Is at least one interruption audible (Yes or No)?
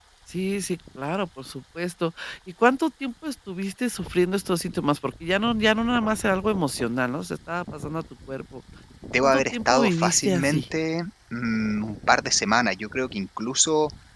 Yes